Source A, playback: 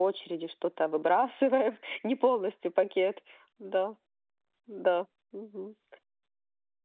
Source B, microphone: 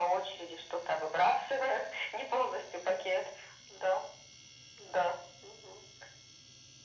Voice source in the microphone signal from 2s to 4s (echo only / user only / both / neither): echo only